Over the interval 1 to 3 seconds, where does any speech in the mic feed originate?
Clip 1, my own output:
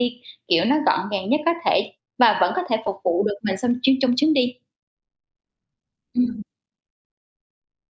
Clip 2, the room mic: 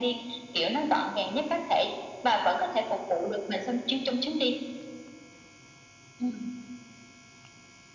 echo only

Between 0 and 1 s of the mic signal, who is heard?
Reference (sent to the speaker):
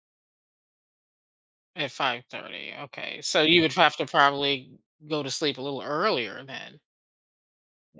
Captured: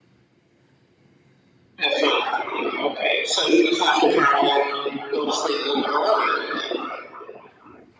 neither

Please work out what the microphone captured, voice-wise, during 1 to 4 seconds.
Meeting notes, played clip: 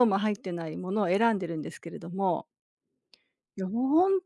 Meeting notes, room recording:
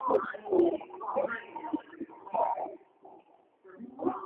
echo only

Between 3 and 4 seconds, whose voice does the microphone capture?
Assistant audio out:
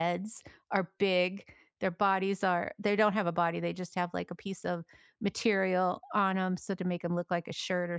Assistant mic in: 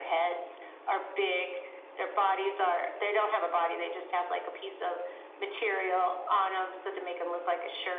echo only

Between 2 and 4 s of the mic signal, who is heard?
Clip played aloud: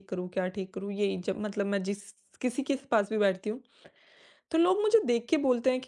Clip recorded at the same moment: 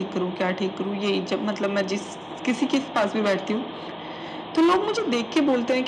echo only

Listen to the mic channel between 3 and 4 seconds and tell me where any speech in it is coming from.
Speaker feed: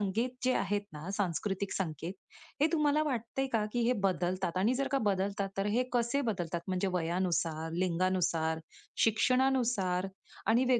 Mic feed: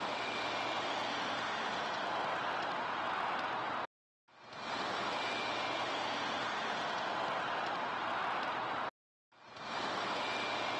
neither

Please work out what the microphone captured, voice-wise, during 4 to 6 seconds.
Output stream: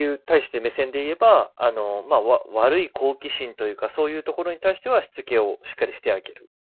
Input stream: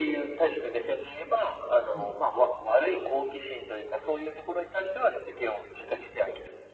echo only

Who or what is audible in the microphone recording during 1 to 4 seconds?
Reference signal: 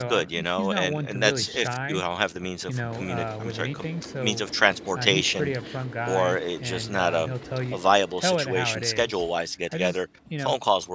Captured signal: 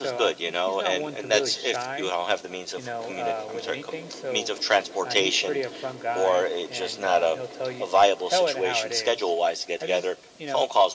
echo only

